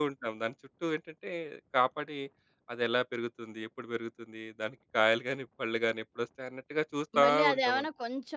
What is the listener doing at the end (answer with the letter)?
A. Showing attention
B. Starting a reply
B